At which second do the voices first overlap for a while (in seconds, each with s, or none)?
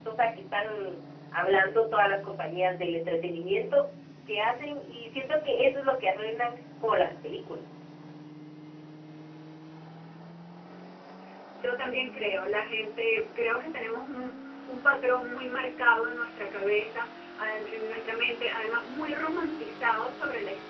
none